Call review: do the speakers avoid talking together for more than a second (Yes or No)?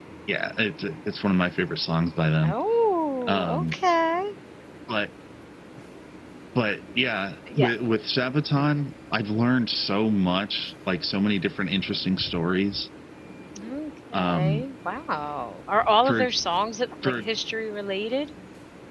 Yes